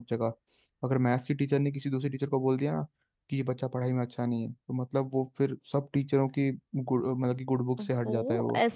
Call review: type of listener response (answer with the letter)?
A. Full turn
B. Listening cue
A